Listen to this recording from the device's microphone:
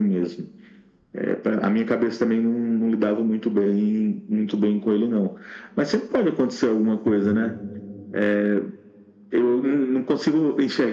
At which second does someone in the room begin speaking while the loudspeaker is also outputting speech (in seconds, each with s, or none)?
7.1 s